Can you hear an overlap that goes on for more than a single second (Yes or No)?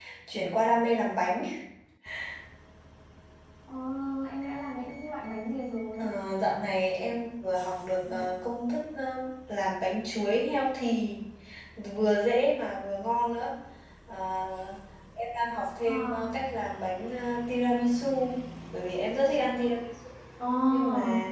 No